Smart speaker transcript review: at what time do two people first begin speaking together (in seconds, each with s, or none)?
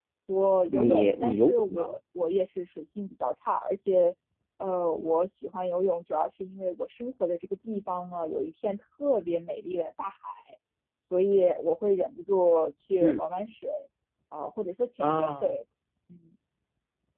0.7 s